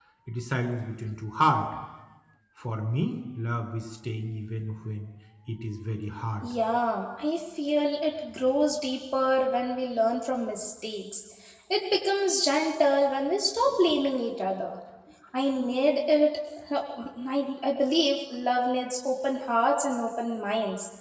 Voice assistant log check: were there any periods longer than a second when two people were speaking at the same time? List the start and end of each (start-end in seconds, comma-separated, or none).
none